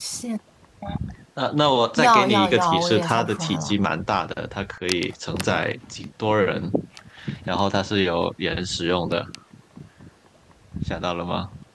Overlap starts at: 2 s

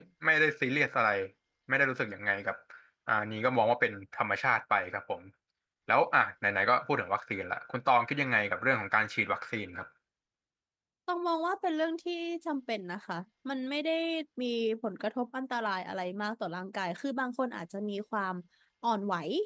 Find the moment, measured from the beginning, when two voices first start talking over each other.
none

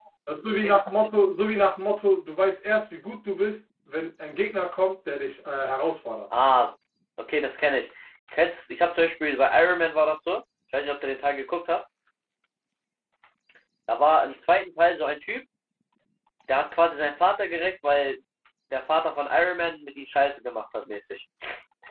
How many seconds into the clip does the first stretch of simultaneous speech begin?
none

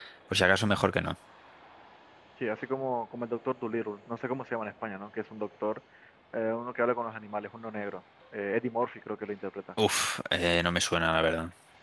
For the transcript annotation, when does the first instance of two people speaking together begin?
none

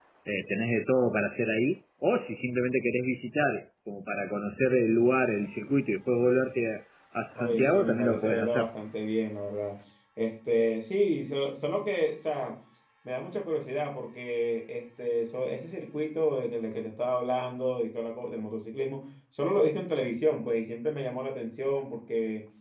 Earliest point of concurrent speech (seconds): 7 s

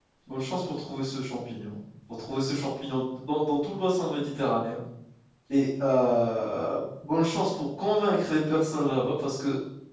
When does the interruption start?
none

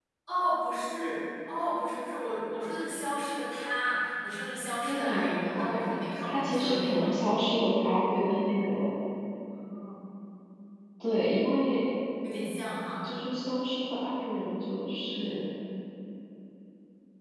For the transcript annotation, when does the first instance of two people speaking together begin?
5 s

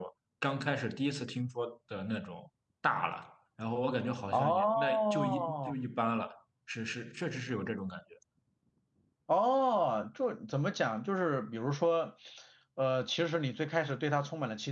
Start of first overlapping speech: 4 s

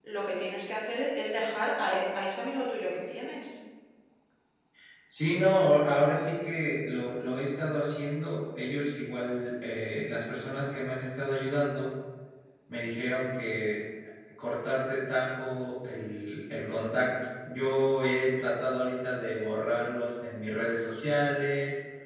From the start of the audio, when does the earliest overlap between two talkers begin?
none

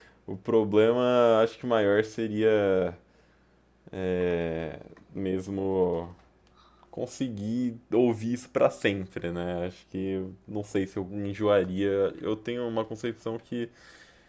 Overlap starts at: none

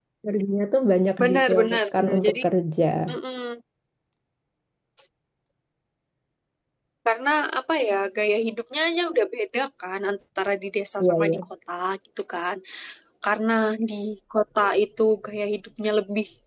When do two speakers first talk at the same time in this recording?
1 s

